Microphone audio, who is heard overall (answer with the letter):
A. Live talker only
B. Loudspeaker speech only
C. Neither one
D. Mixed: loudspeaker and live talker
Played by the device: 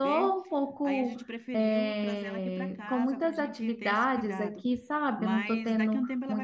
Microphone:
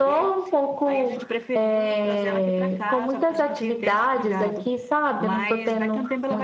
B